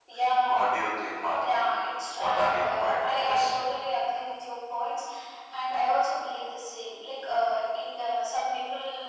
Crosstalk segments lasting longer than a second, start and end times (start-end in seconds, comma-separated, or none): 2.1-3.5